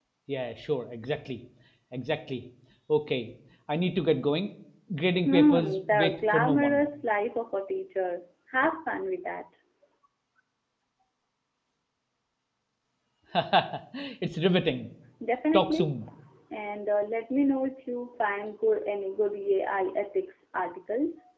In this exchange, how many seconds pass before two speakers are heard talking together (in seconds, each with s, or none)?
5.2 s